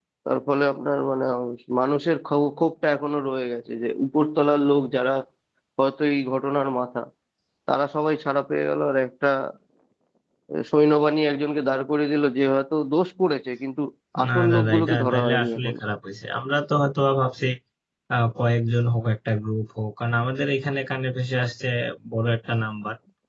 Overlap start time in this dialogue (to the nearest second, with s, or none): 14 s